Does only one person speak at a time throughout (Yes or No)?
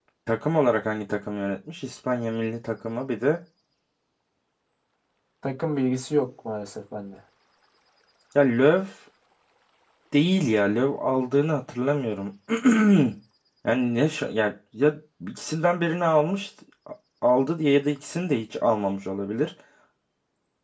Yes